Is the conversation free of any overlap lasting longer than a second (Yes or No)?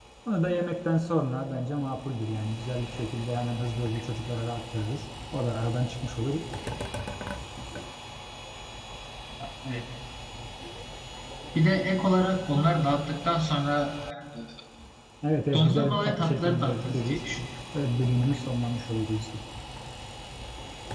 No